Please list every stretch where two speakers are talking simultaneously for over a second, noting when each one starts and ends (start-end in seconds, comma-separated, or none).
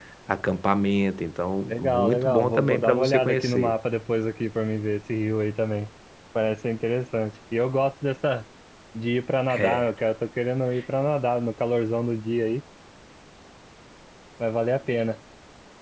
1.7-3.7